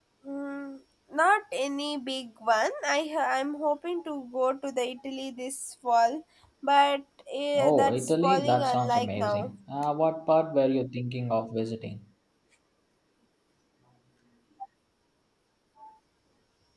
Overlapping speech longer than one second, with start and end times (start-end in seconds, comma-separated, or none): 7.6-9.5